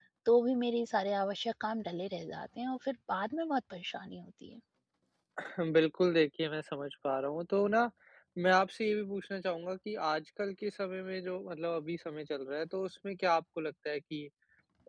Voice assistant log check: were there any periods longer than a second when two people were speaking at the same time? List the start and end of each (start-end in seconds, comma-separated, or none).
none